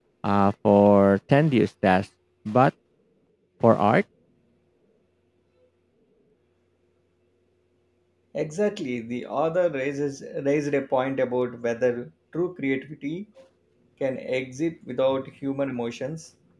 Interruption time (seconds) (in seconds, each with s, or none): none